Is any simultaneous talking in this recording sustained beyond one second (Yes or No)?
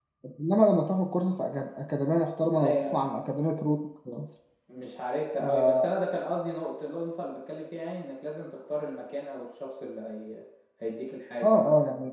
No